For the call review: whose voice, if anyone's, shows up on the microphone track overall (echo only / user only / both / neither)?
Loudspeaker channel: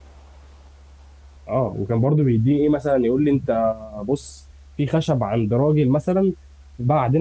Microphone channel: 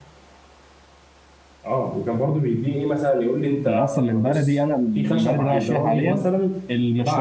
both